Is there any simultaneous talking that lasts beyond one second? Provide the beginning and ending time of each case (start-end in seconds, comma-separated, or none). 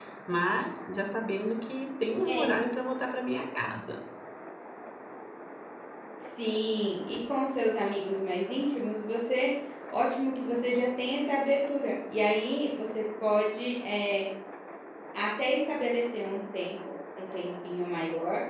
none